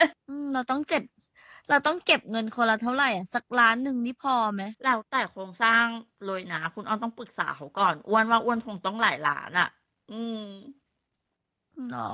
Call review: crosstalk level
none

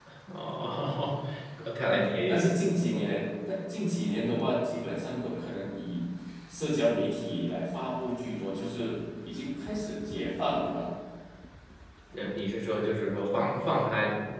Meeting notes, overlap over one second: present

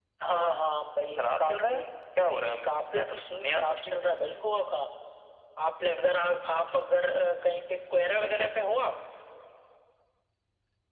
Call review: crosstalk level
present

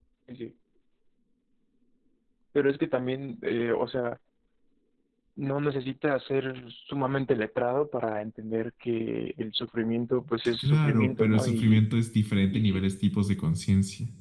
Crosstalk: present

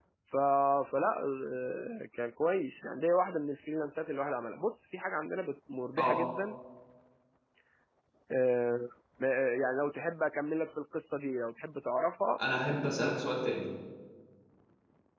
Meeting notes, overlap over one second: none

